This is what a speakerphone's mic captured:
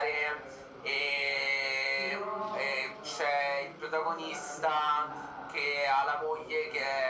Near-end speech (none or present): present